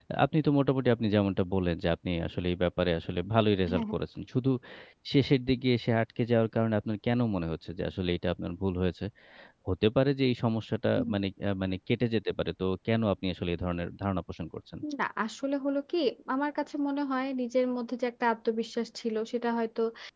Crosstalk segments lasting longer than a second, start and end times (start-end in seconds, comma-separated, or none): none